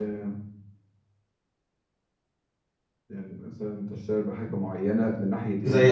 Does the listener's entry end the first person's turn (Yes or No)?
Yes